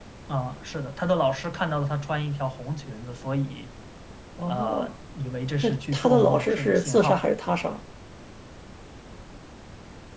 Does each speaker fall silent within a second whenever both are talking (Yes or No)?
No